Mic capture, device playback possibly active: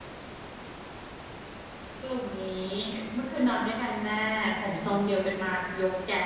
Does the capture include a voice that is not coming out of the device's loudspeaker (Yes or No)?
Yes